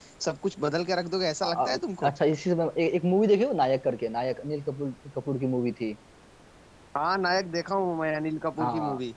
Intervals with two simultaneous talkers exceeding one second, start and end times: none

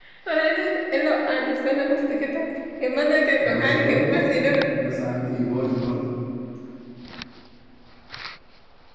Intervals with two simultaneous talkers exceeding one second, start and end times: 3.4-4.7

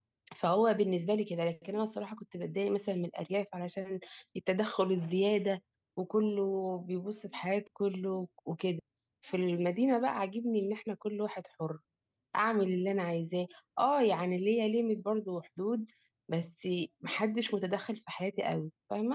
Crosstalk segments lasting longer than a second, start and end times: none

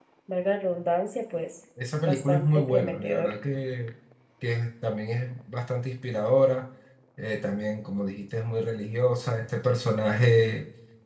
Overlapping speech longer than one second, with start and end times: 2.1-3.3

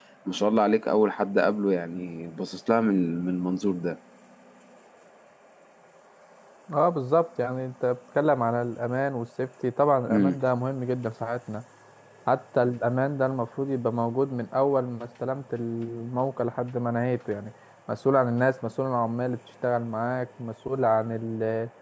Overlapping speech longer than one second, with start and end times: none

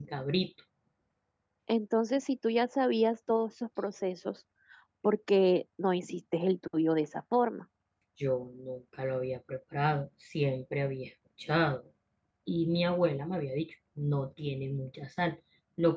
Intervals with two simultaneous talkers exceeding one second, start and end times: none

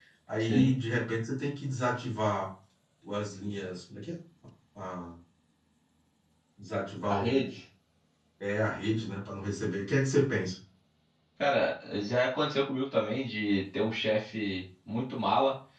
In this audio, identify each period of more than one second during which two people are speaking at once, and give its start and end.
none

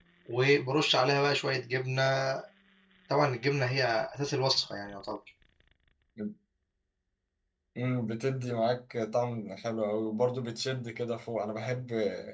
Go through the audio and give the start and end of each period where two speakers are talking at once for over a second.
none

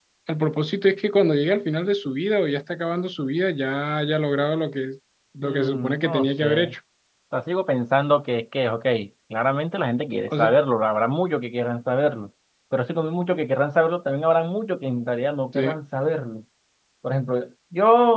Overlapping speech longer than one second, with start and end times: 5.4-6.7

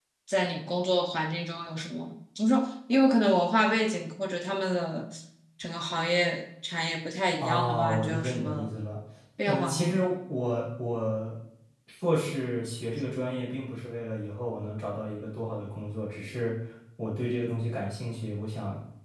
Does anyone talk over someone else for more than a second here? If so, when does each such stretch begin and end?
7.4-8.7

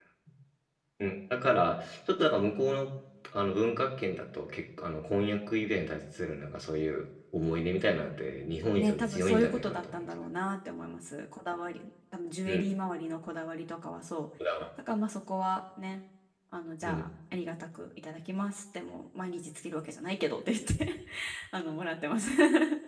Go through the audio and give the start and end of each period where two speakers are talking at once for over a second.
8.8-10.0

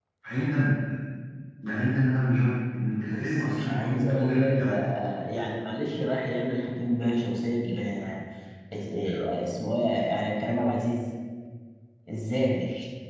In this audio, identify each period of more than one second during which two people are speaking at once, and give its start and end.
3.0-4.7

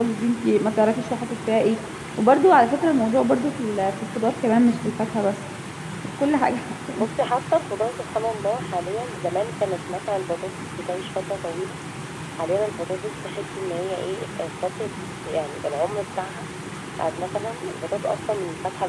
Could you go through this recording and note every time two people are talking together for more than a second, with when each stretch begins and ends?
none

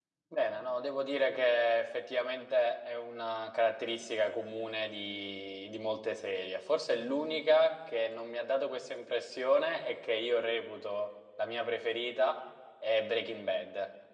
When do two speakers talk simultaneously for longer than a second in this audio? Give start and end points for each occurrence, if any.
none

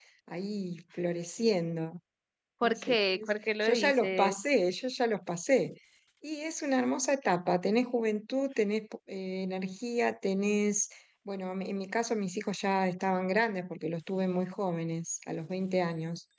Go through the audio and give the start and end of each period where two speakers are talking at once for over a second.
2.6-4.3

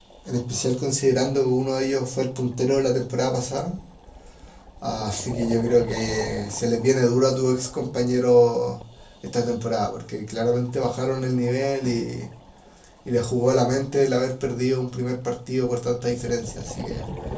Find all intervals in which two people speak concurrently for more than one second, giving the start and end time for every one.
none

